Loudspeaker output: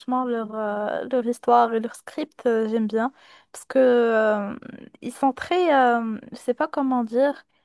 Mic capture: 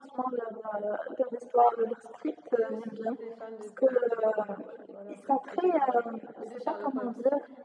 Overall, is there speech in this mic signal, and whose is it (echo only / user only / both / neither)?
both